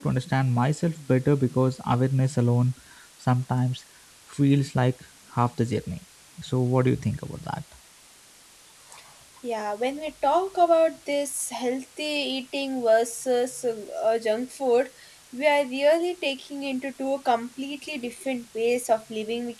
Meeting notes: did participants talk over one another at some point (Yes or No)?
No